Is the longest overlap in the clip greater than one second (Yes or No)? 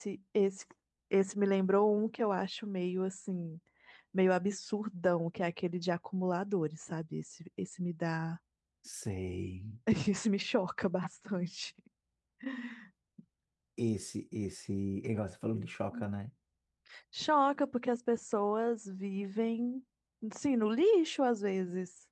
No